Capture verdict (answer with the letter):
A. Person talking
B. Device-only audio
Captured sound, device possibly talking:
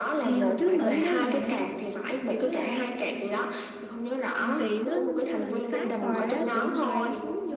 A